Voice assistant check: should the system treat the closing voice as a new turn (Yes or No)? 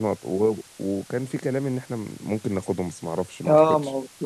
Yes